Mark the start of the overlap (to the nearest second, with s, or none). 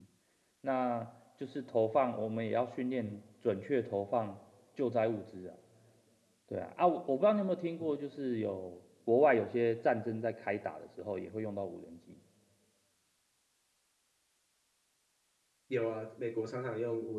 none